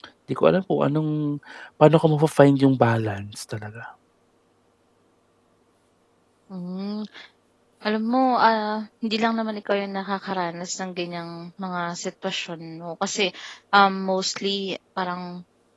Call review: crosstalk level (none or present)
none